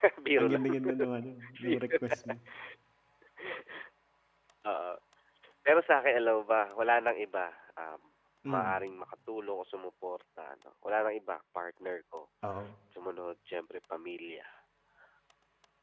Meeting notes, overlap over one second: none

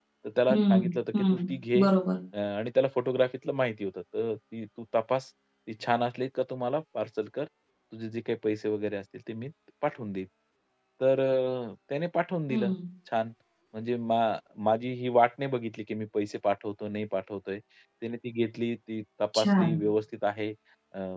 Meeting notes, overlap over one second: present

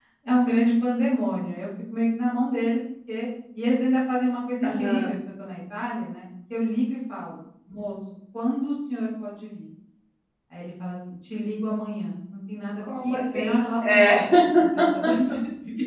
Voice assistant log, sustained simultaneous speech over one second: present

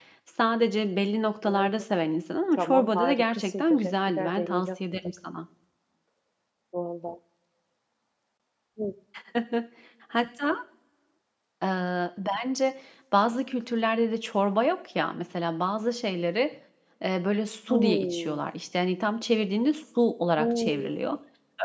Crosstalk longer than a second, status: present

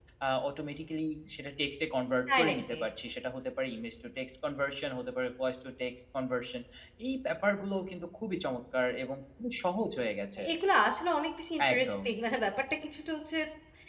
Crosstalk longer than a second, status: none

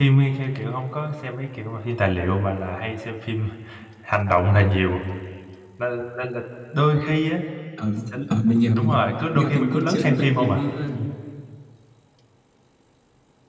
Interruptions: present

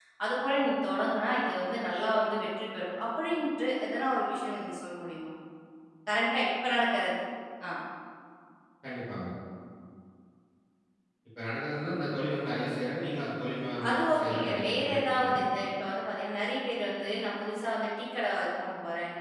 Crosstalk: present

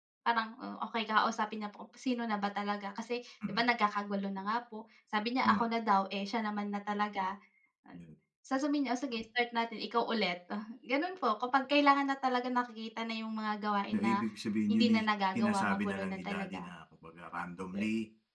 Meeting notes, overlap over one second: present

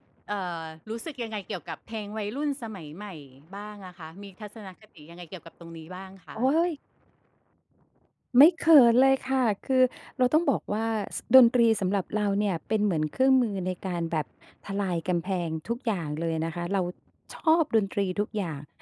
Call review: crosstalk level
none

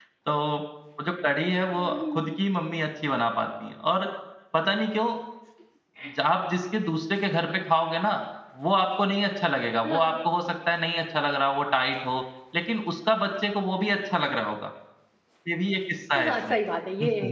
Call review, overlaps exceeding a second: none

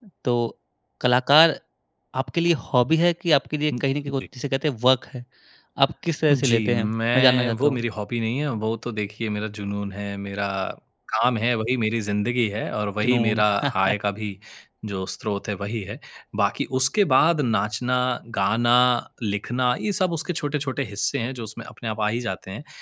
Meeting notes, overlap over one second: present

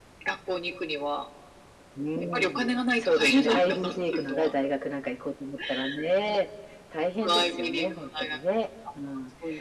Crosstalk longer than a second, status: present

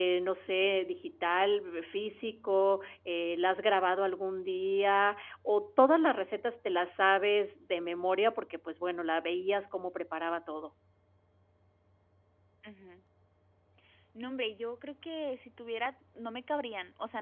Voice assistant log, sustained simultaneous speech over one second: none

